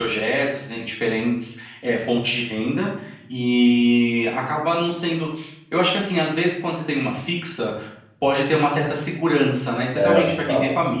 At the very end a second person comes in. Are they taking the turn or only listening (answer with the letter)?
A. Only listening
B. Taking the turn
A